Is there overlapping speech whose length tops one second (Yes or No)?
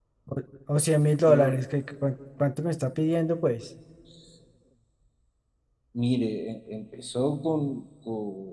No